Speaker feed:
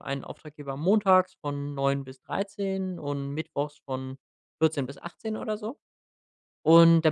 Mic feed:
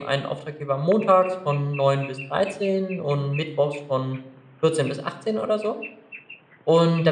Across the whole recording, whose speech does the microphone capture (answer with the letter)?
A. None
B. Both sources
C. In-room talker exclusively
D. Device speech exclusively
D